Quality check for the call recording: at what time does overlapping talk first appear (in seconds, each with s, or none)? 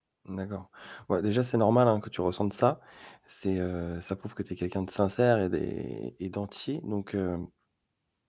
none